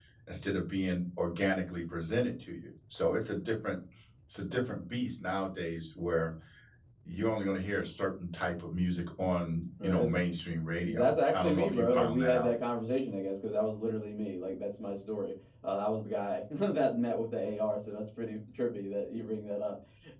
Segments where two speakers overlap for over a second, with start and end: 10.8-12.5

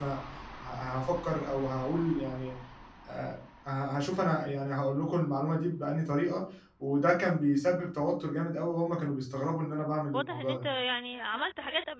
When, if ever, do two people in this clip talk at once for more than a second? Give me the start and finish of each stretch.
none

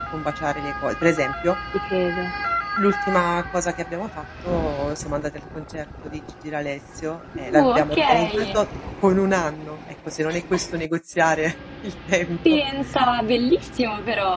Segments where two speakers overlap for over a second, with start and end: 7.4-8.6

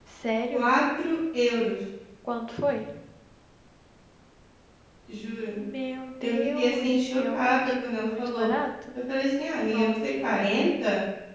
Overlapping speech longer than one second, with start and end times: 6.2-8.5

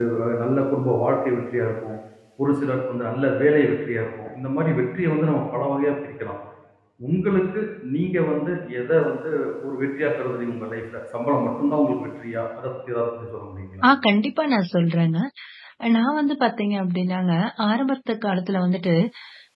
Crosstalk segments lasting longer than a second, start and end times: none

